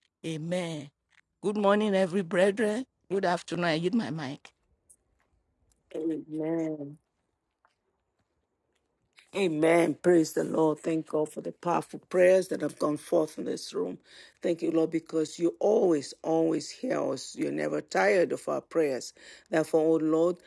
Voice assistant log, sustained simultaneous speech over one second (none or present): none